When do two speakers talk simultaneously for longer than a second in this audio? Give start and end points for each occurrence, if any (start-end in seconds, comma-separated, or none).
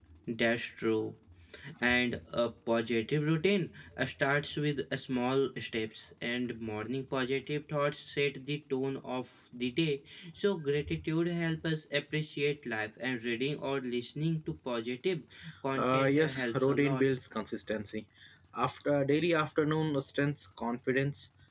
15.8-17.0